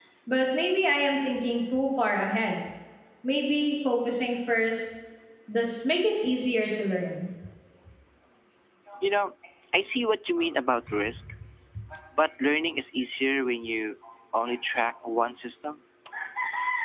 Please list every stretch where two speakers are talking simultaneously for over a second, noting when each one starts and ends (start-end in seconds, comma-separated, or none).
none